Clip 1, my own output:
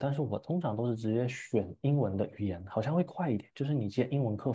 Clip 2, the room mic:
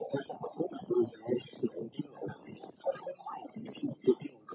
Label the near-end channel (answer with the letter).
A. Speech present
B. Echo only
B